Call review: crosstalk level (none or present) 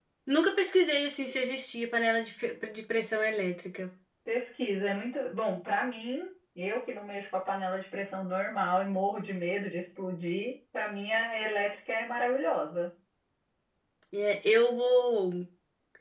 none